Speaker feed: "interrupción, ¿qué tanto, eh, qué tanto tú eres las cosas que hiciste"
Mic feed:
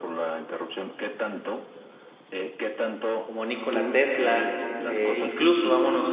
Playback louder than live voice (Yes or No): No